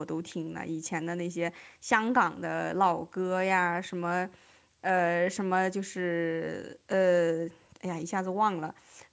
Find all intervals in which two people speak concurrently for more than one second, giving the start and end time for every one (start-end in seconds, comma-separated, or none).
none